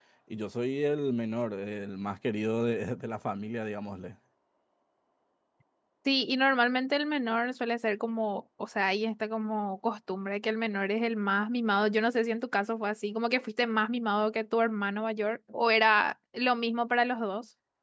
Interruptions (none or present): none